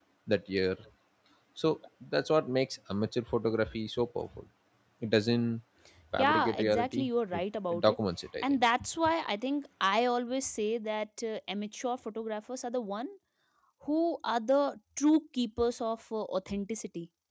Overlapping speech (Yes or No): Yes